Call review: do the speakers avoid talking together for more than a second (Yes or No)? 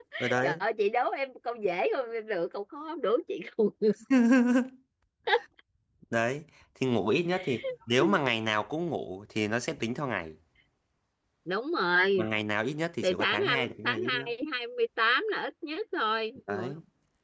No